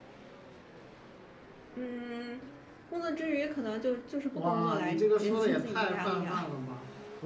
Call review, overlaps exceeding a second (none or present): present